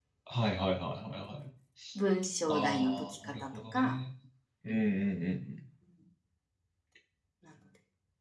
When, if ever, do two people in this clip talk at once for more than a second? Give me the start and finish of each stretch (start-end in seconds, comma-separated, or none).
2.5-4.0